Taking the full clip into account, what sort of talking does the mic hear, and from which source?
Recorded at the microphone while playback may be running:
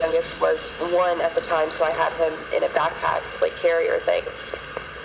echo only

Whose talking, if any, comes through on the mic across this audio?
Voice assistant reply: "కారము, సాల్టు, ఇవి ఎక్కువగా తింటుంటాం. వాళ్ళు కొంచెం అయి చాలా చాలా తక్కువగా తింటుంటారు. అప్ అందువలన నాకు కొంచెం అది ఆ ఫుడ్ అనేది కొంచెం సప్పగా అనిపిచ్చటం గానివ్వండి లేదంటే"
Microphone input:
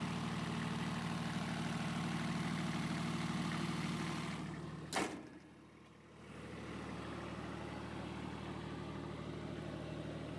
neither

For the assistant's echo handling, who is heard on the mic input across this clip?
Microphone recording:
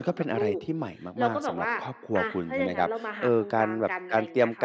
both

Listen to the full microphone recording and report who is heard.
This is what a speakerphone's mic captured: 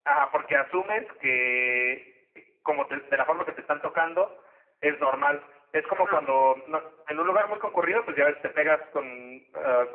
both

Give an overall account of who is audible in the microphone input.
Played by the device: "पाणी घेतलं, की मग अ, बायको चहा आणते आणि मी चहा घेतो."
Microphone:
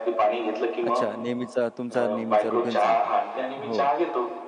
both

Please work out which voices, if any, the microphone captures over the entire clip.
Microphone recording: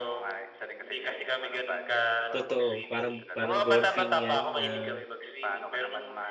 both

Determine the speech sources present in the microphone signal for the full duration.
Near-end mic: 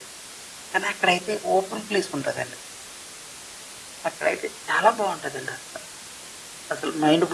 echo only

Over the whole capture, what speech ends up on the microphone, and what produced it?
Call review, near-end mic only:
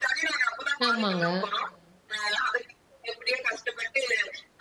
both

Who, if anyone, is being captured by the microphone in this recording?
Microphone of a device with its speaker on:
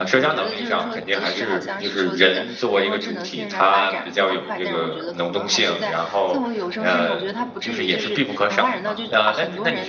both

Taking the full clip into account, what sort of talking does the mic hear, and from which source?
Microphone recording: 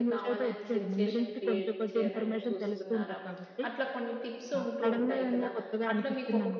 both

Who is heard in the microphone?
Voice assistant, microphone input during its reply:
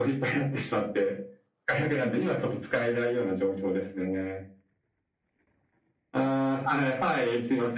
echo only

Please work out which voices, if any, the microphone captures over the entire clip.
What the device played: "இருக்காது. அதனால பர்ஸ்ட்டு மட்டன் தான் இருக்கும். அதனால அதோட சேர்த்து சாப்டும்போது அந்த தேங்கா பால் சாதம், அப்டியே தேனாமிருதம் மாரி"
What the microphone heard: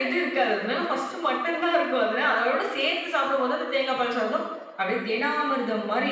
echo only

